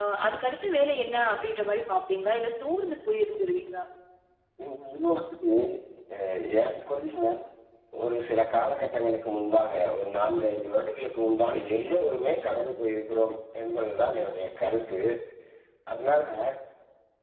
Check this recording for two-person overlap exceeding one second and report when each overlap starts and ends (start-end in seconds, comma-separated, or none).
none